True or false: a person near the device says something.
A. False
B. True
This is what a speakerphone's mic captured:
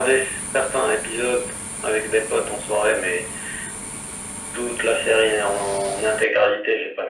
A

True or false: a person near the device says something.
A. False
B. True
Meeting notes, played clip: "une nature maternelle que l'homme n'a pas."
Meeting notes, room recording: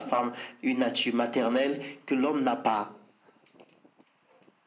A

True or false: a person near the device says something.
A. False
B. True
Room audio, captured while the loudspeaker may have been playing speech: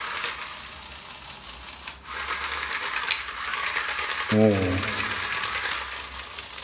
B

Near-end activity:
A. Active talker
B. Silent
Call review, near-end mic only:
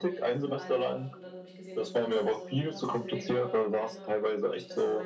A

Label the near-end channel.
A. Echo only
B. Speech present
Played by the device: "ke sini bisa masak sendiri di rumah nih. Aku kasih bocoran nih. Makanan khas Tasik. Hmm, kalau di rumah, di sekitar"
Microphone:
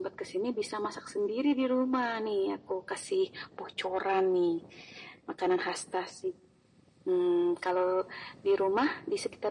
A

